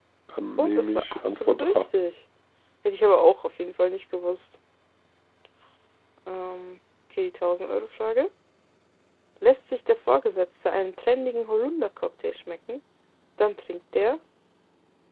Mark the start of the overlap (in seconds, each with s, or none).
0.6 s